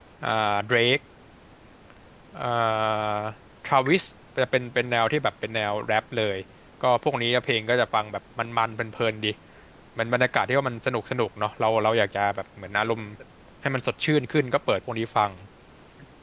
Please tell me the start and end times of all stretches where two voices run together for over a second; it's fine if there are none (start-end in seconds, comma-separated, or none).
none